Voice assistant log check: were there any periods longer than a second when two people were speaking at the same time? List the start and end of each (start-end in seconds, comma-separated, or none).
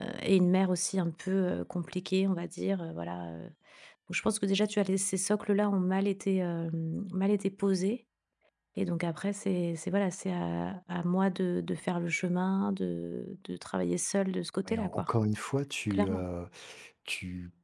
none